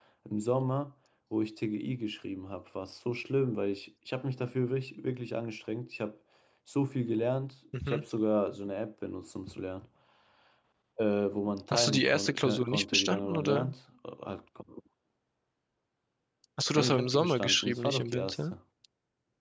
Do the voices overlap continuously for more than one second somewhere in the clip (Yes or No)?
Yes